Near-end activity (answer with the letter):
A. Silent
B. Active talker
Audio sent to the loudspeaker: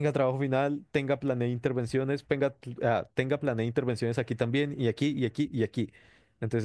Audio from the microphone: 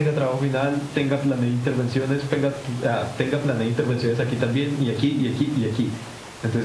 A